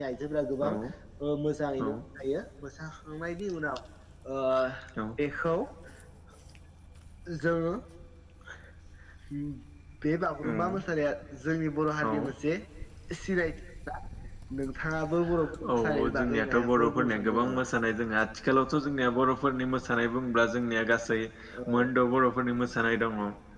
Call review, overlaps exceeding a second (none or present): present